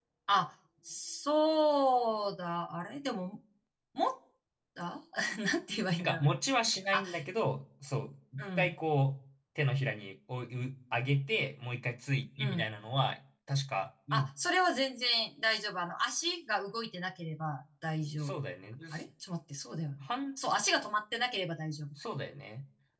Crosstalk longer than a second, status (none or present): none